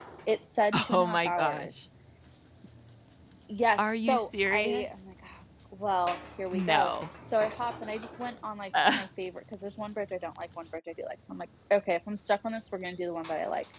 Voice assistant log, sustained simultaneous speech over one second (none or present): present